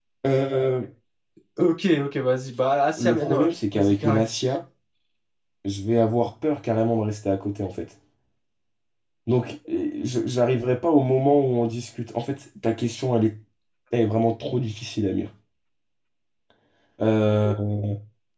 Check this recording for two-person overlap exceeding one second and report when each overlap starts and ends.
3.0-4.2

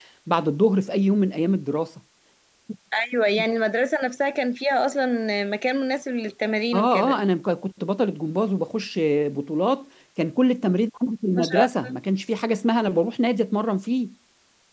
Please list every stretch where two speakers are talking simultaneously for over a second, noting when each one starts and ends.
none

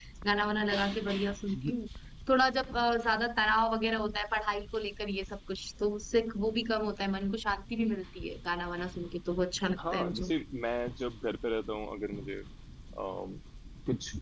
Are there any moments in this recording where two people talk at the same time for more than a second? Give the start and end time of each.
none

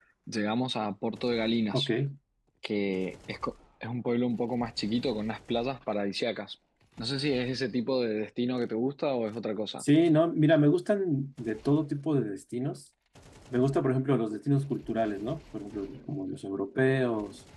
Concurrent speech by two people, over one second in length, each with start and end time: none

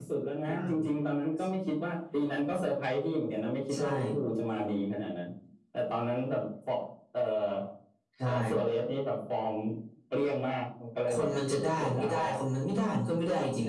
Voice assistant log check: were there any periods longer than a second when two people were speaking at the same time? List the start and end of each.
11.1-12.3

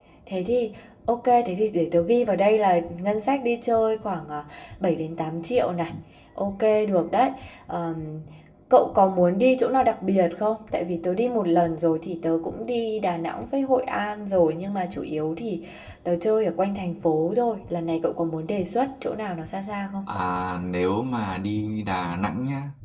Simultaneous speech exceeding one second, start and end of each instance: none

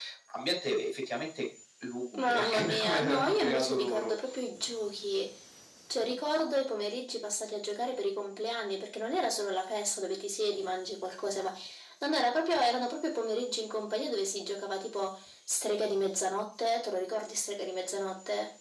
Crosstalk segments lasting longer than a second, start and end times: 2.2-4.1

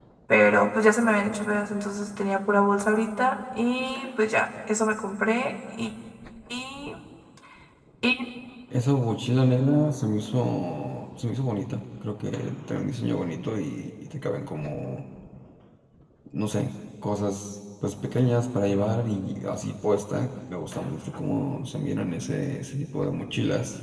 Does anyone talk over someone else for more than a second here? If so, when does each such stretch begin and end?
none

